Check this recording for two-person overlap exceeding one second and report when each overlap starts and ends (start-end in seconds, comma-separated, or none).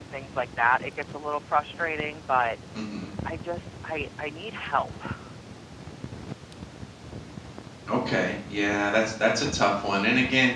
none